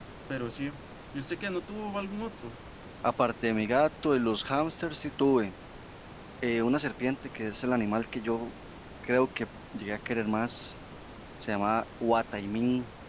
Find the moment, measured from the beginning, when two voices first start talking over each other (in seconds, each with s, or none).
none